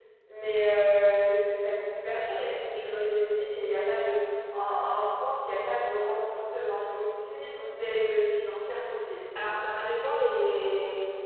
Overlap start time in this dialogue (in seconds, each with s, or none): none